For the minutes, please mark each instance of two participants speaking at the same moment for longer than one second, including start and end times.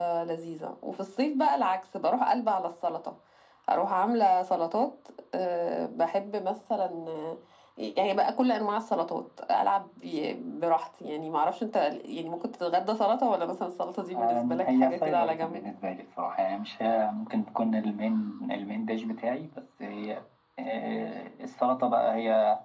14.2-15.6

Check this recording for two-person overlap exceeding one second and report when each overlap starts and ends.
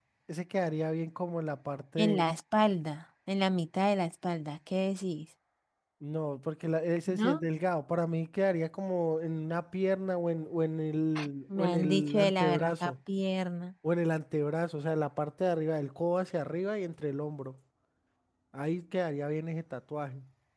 11.6-12.9

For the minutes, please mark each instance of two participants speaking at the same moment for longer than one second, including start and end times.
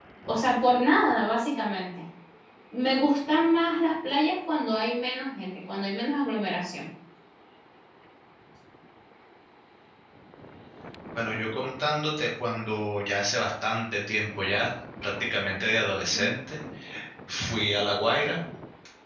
none

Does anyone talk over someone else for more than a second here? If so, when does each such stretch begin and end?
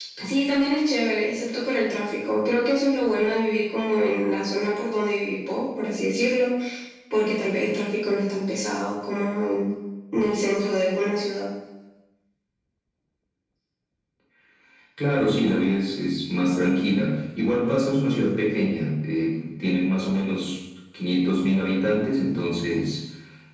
none

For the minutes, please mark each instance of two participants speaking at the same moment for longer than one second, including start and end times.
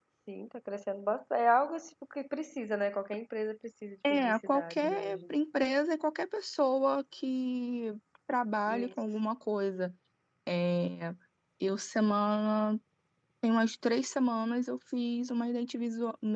4.1-5.3

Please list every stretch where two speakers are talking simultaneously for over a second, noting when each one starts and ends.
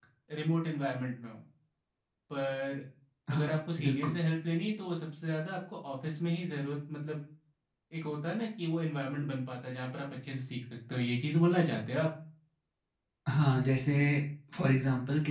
none

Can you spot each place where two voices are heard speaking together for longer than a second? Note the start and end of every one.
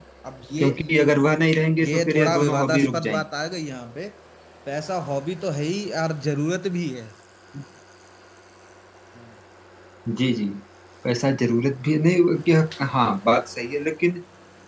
1.8-3.2

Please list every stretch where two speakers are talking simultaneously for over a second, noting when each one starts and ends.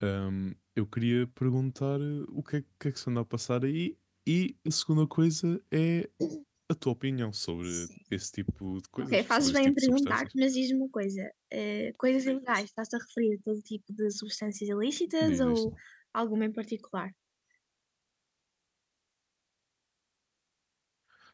9.0-10.3

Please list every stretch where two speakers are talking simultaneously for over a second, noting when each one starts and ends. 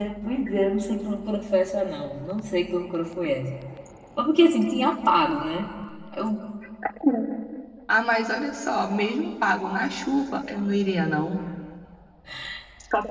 none

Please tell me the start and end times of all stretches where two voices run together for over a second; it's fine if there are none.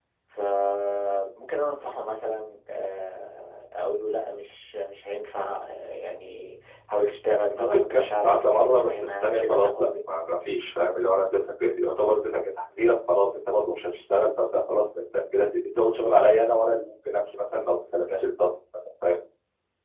7.5-9.9

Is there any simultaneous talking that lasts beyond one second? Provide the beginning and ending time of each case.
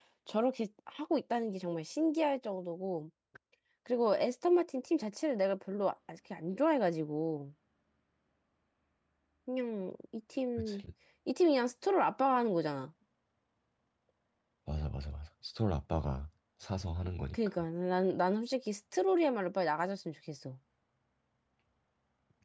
none

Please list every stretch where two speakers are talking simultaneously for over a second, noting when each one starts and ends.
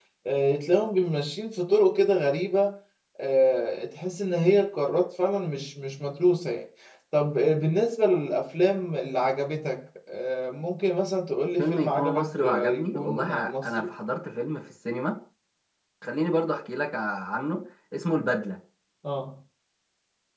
11.6-13.9

